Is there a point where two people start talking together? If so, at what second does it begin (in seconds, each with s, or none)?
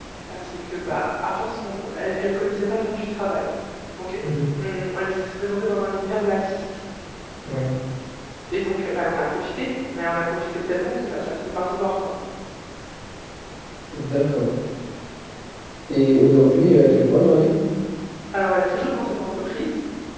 none